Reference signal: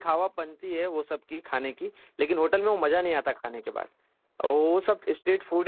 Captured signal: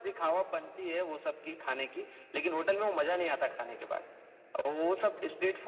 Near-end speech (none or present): none